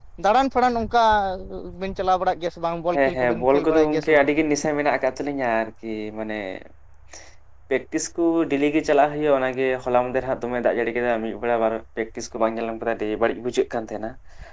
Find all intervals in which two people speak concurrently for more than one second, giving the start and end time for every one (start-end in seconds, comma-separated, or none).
3.0-4.3